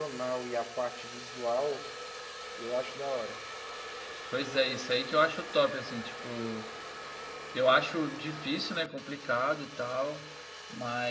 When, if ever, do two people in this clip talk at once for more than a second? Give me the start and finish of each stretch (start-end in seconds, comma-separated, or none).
none